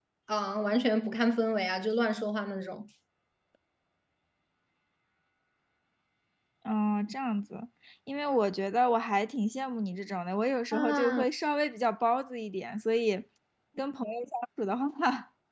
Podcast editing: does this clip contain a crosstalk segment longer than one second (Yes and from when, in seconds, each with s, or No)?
No